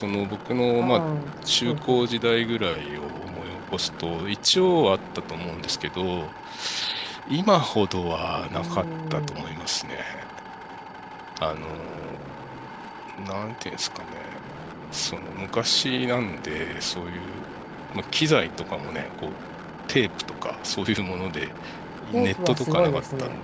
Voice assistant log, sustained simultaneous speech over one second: present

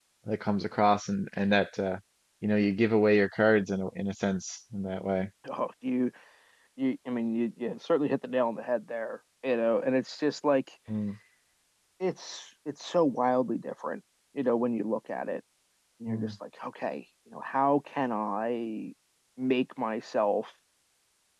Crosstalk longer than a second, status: none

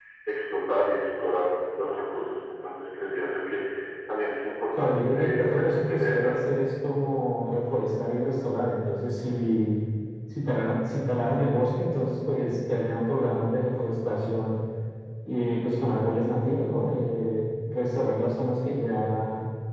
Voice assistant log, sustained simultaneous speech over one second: present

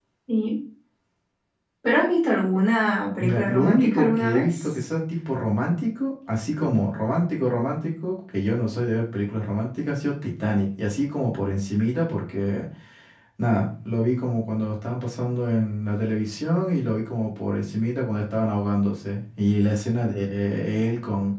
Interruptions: present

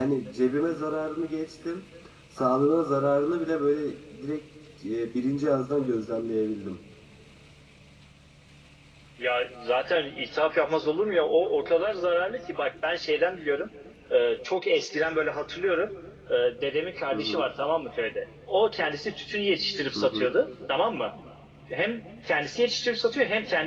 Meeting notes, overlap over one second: none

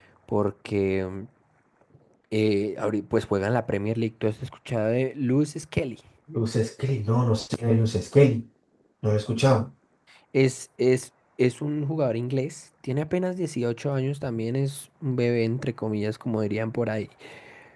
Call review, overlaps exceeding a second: none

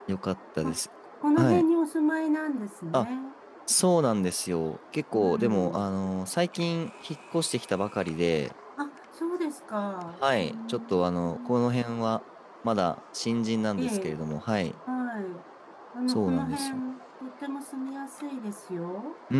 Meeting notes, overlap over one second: present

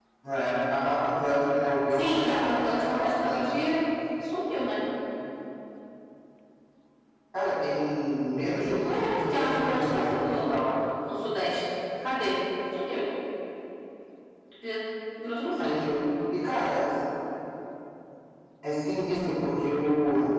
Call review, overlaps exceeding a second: present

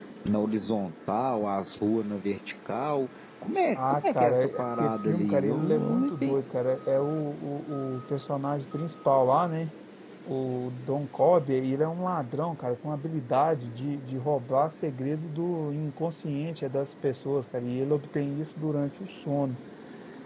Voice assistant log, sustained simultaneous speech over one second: present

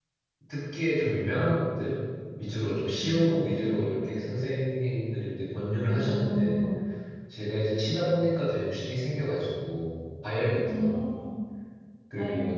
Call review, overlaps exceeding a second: present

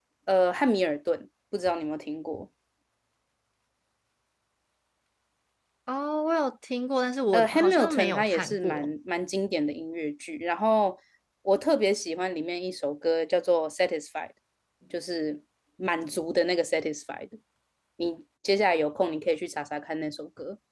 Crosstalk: present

